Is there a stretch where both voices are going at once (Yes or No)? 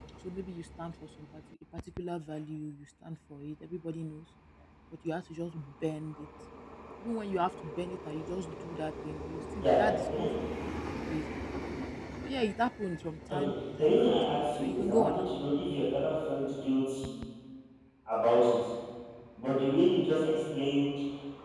Yes